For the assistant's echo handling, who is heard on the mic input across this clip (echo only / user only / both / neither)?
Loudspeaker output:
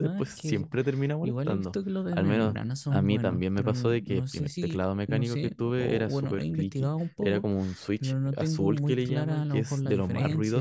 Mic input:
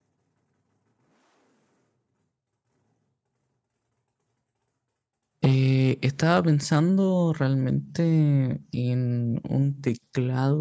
user only